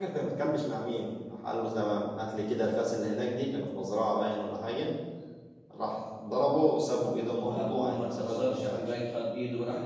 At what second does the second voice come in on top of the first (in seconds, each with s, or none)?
7.4 s